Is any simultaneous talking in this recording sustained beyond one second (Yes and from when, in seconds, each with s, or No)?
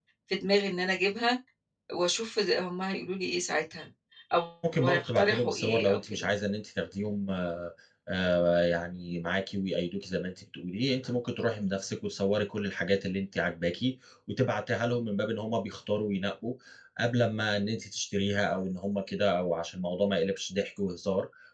Yes, from 4.8 s